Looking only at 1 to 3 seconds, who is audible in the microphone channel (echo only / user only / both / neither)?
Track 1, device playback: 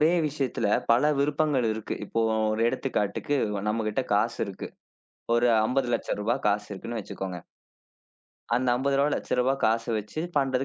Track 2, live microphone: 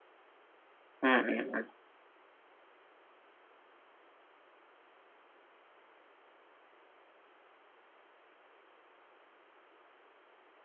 user only